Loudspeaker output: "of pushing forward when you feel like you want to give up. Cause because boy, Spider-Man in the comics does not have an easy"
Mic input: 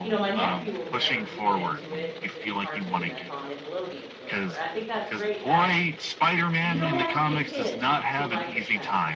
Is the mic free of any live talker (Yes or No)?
No